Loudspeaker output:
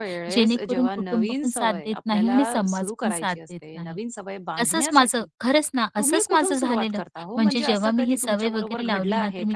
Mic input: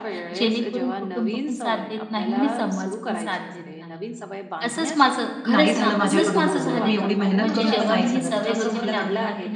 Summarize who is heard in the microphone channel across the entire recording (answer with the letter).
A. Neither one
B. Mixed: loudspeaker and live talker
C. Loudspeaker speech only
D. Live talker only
B